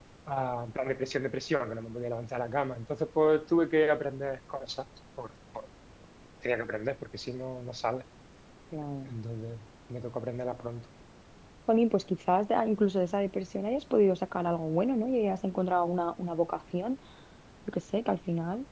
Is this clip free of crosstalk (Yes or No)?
Yes